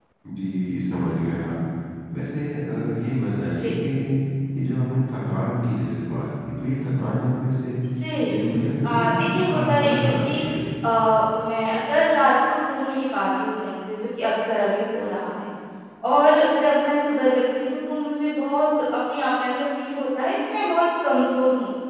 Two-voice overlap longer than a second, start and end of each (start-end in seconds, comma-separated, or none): 8.8-10.4